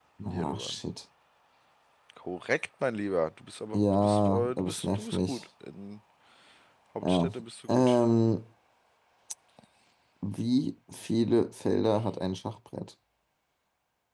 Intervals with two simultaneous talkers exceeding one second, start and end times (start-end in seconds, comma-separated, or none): 3.7-5.4